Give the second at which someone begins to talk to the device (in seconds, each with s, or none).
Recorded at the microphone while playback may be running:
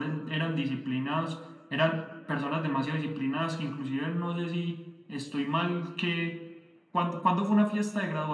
none